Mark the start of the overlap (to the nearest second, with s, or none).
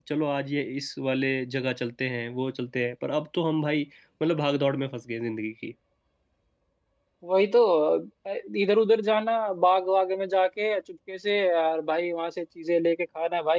none